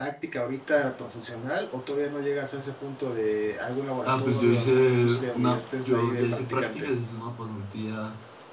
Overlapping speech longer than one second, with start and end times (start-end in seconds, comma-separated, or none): 4.0-6.9